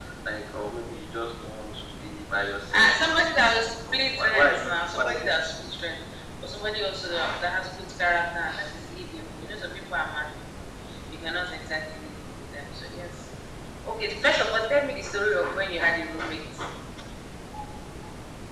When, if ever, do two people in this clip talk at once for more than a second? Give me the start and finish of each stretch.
3.4-5.0

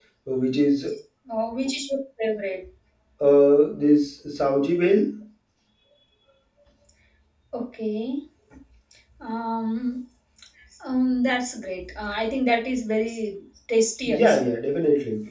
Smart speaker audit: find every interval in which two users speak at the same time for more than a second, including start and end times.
none

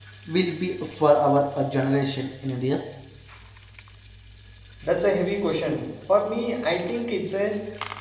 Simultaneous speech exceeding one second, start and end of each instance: none

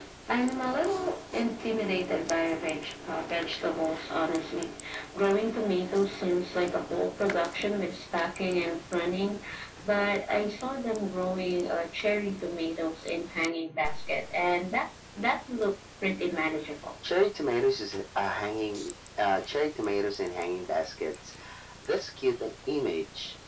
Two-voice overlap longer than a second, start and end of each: none

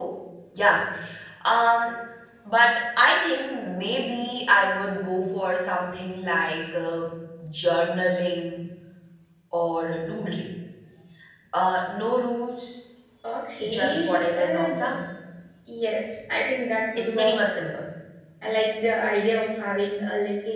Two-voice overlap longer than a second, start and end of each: 13.7-14.9

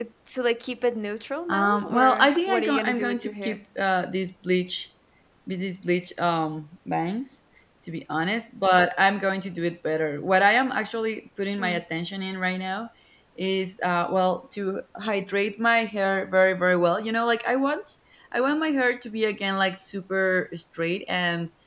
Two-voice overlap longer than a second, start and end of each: 1.5-3.6

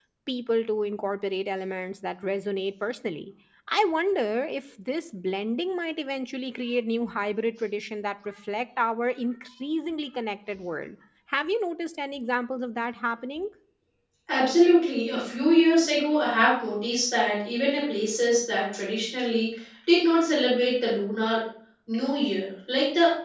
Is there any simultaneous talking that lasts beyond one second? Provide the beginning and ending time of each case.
none

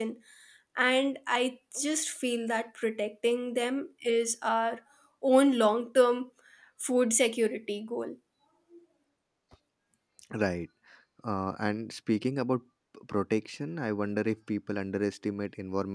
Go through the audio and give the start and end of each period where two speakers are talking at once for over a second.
none

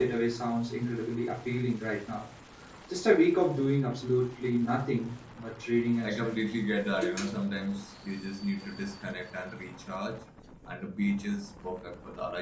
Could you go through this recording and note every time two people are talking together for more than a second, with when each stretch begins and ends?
none

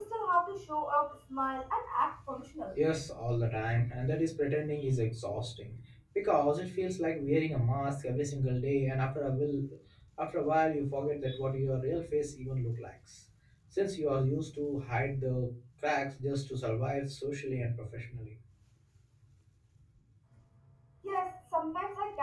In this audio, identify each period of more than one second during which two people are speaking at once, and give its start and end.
none

